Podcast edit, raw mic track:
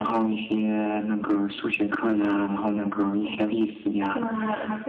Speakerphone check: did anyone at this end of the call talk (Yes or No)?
Yes